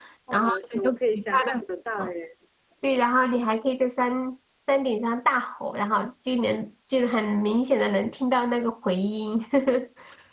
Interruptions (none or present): present